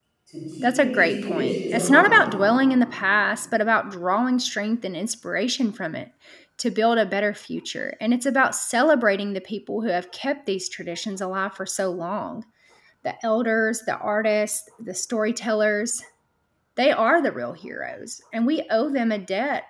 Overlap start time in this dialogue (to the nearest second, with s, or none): 1 s